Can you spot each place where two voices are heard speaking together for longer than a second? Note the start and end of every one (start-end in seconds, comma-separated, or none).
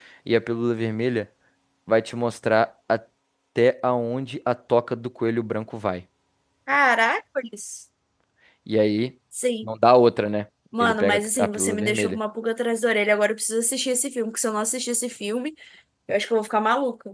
10.8-12.2